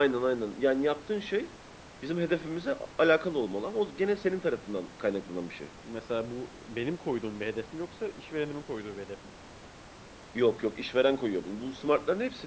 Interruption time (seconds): none

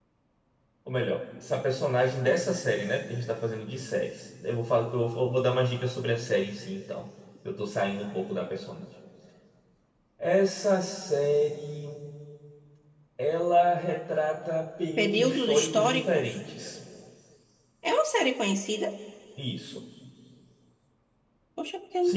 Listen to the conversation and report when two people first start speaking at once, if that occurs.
15.0 s

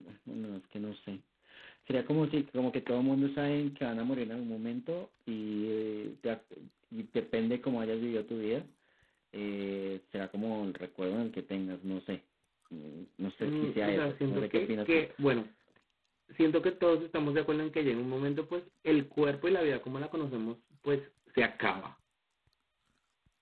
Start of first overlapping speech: 13.4 s

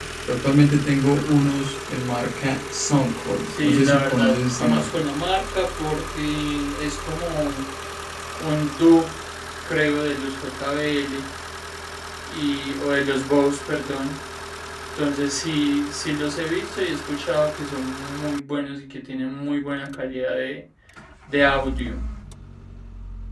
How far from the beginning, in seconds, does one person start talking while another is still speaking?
3.5 s

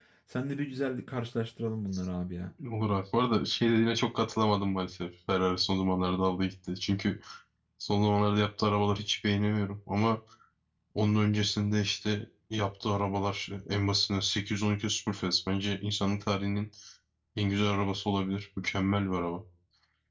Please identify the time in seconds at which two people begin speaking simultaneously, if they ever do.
none

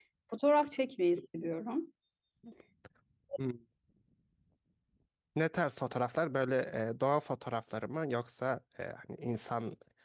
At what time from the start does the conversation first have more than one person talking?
none

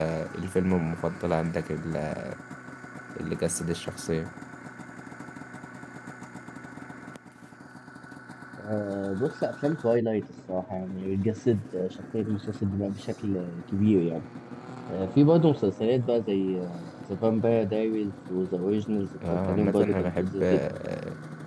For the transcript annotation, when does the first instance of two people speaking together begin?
19.2 s

